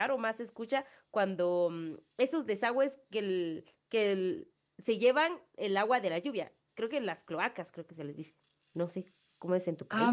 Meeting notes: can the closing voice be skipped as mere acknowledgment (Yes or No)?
No